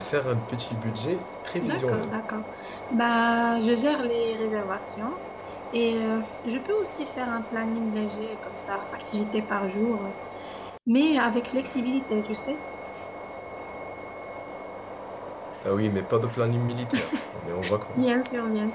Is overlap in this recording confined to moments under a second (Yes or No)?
Yes